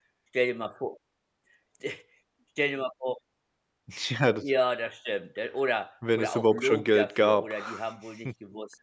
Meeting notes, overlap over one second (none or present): present